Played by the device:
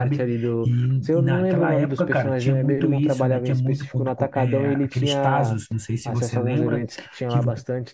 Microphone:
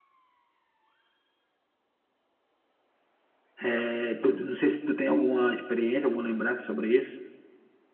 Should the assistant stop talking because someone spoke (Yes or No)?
Yes